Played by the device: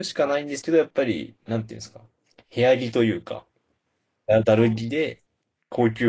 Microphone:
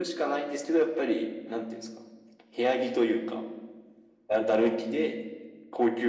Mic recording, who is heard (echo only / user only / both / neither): echo only